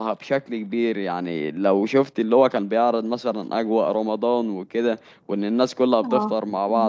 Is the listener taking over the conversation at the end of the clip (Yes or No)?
No